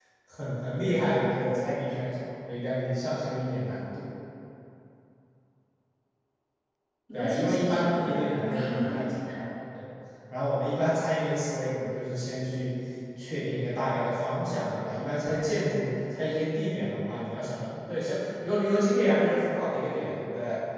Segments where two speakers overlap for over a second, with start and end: 7.1-9.0

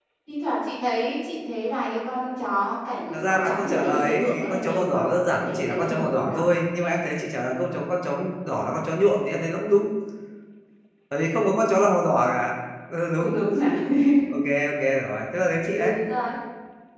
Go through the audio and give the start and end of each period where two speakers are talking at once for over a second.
3.1-6.4

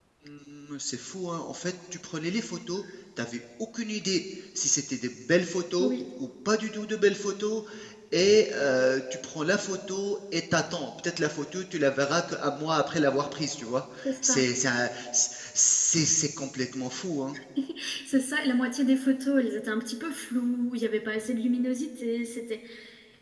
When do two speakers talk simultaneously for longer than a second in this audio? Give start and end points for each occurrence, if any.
none

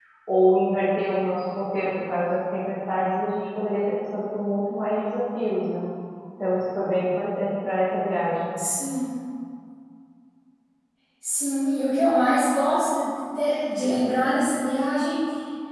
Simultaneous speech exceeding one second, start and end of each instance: none

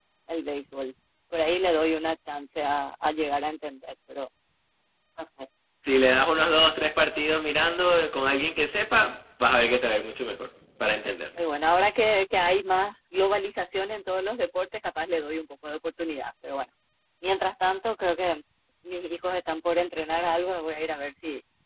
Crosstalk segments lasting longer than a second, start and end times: none

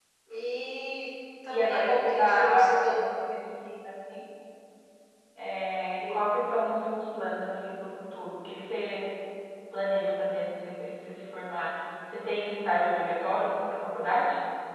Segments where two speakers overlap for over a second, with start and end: 1.5-3.0

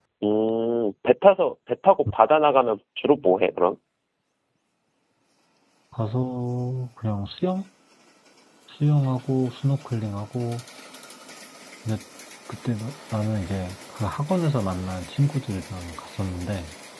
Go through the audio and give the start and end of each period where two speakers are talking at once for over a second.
none

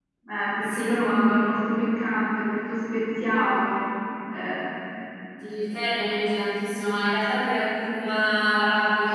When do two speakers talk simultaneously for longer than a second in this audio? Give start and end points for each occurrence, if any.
none

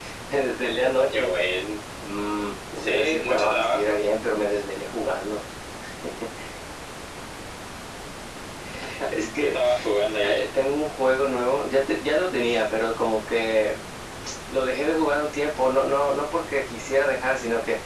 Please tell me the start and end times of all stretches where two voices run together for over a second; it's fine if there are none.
2.8-4.0

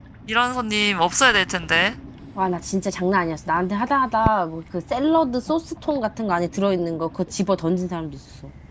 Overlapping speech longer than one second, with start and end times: none

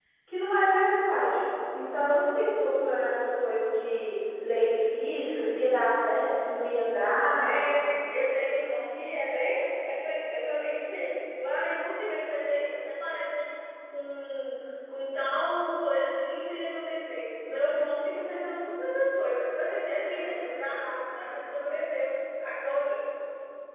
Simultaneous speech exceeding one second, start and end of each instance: none

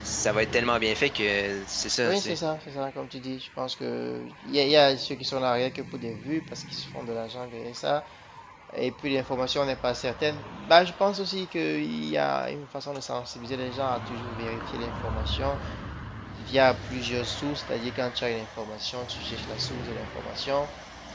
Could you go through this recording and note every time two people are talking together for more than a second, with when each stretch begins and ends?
none

